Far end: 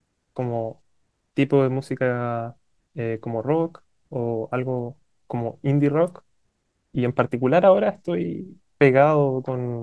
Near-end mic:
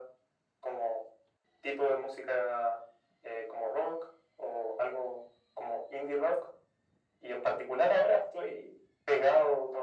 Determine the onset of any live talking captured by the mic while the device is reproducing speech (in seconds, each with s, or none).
none